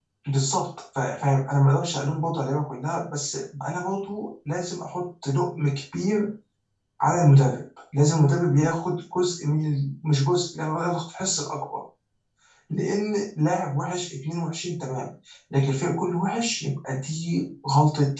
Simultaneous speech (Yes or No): No